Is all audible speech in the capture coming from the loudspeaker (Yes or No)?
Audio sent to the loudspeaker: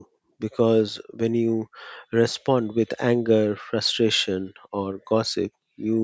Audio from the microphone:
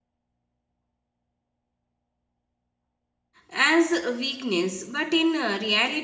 No